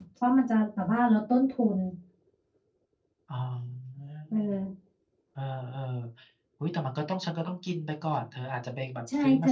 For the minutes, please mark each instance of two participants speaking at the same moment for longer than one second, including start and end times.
none

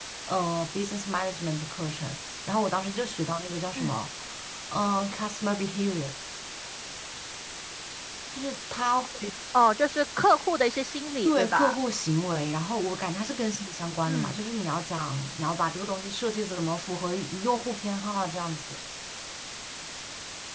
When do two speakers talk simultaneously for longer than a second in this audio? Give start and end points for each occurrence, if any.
none

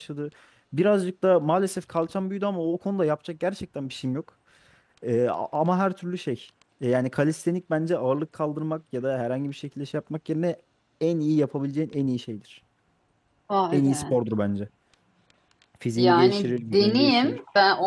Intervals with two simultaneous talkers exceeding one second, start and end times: 16.0-17.4

